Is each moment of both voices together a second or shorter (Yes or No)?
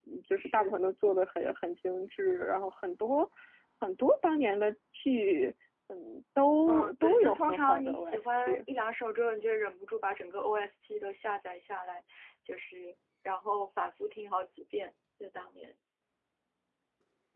No